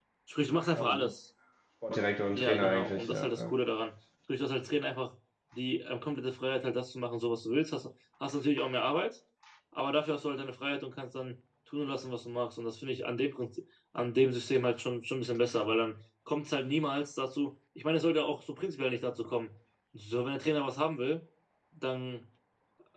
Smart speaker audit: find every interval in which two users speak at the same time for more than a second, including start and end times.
2.3-3.5

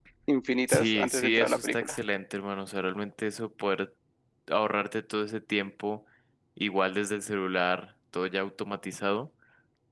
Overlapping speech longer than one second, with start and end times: 0.7-2.0

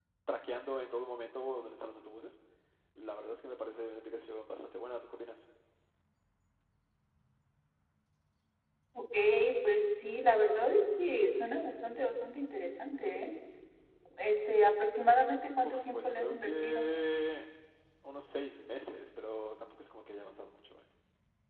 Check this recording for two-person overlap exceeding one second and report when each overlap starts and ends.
15.6-16.8

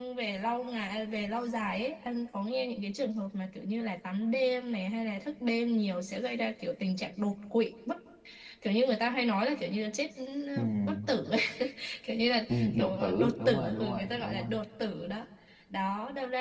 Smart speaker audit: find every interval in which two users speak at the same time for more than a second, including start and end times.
12.5-14.5

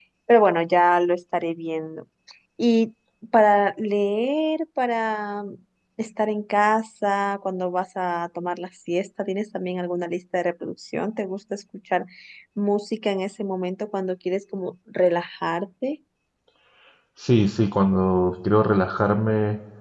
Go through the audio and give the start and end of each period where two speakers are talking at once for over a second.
none

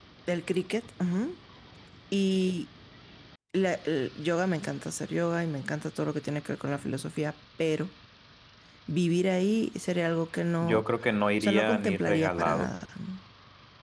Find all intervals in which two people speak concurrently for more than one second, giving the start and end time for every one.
11.4-12.7

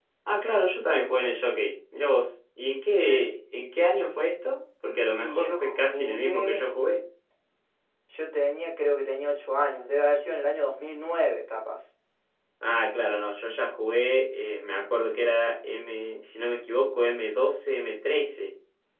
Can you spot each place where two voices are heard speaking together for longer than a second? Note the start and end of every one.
5.2-6.6

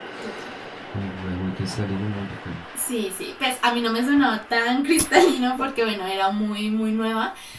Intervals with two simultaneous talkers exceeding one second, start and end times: none

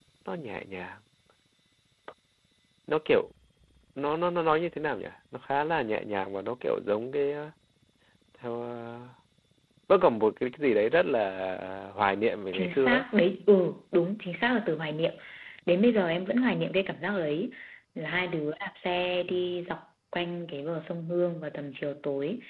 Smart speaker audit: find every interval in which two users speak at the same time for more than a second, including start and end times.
none

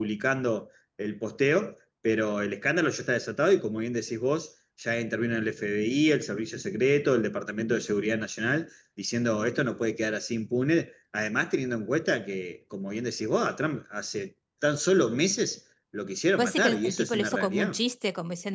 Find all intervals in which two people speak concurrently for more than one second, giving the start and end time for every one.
16.4-17.8

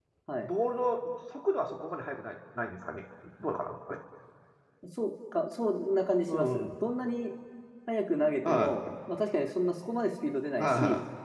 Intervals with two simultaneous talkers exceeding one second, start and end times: none

